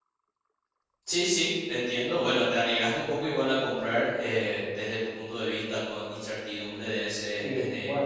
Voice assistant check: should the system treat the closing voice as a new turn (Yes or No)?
Yes